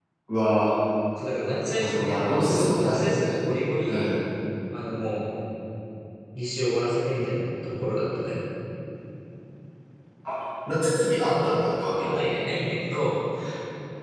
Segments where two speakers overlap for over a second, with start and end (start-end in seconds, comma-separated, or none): 1.8-3.5